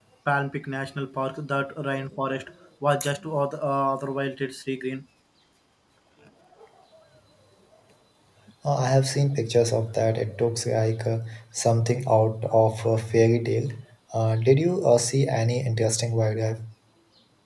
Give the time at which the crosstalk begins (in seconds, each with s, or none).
none